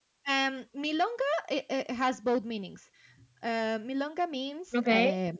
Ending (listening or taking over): listening